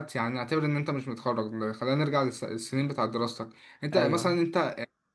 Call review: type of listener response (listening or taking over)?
listening